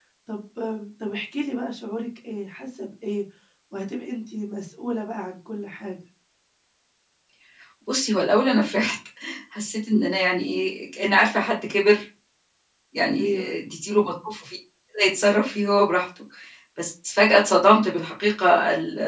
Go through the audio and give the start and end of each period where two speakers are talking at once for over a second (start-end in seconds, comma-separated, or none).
none